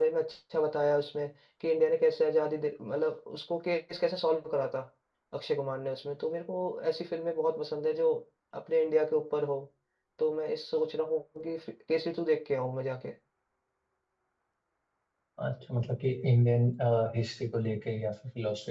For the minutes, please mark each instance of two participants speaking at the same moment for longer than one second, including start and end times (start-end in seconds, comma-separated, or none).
none